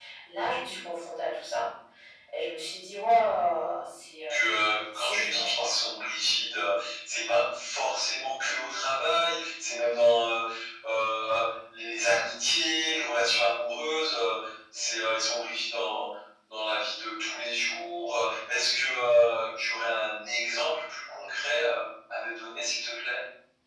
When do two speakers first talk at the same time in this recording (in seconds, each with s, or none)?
4.3 s